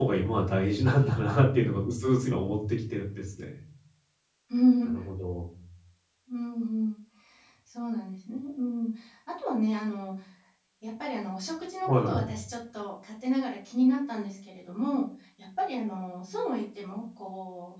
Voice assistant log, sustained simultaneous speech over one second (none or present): none